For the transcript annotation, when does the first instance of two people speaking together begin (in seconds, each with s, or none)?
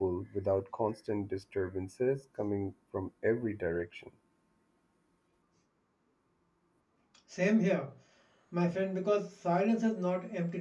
none